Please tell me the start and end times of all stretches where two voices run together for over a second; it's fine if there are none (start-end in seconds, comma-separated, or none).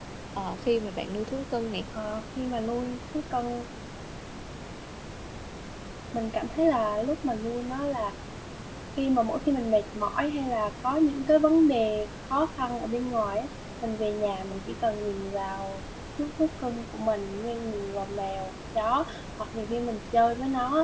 none